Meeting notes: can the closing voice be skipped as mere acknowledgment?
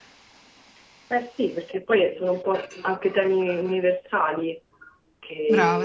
Yes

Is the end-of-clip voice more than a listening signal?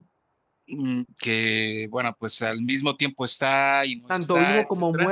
Yes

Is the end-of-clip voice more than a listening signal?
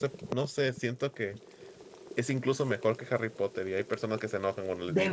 Yes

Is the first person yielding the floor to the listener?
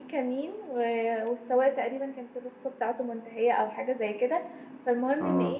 No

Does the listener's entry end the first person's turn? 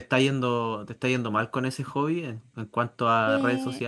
Yes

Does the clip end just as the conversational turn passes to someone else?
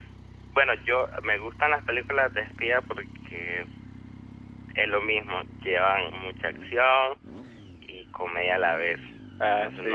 No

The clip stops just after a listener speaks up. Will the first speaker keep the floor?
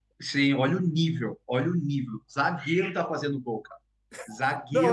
No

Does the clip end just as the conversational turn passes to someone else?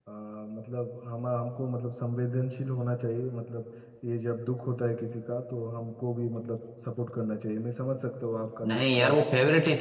Yes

